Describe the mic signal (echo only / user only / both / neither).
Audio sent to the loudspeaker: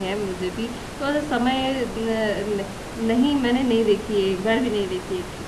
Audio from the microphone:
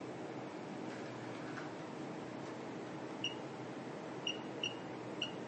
neither